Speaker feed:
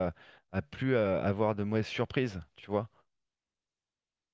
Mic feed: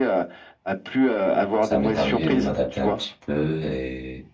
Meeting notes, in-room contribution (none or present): present